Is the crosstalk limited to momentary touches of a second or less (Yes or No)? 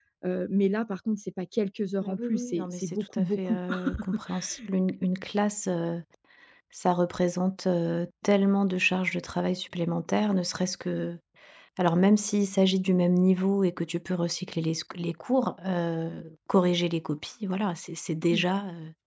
No